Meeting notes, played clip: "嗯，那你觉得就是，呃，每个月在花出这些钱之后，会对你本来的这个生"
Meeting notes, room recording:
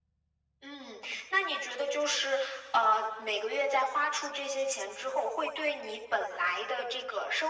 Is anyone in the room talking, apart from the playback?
No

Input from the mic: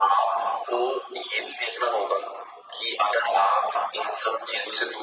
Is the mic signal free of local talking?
Yes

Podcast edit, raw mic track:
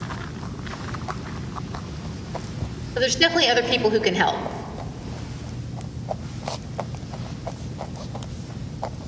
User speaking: Yes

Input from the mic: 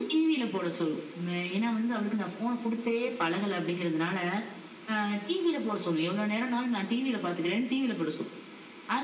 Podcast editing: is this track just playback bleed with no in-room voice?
Yes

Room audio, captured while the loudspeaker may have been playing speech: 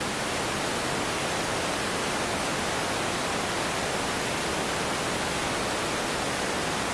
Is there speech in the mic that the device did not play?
No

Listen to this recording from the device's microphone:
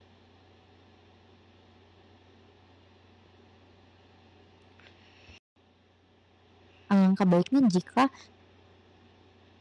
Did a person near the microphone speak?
Yes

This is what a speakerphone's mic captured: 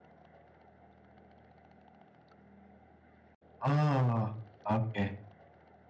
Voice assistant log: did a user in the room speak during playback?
Yes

